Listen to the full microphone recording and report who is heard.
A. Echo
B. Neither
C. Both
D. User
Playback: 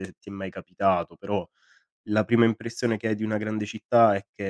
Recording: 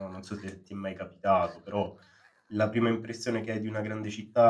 A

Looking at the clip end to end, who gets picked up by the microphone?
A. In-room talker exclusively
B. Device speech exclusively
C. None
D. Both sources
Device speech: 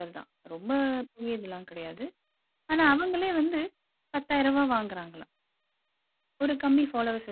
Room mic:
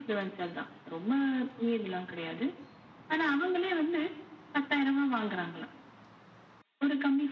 B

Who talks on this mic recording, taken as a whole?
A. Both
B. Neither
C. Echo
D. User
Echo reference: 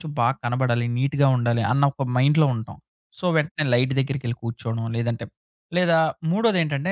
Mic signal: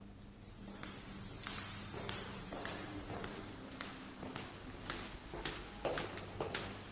B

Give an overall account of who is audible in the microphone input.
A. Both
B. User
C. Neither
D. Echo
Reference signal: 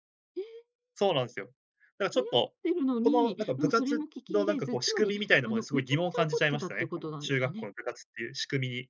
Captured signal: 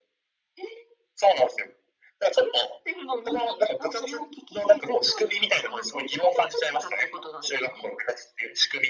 D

